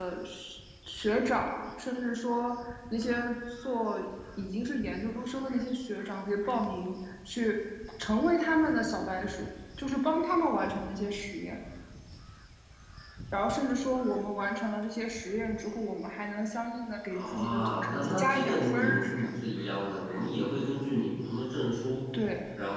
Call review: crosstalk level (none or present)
present